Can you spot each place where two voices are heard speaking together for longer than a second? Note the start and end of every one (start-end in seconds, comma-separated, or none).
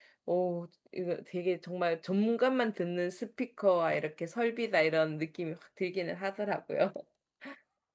none